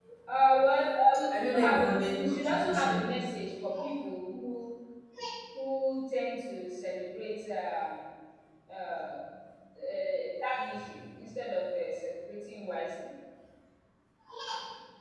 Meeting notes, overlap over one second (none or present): present